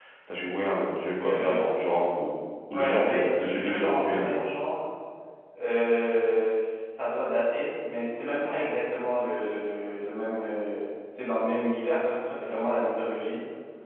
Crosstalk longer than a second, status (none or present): present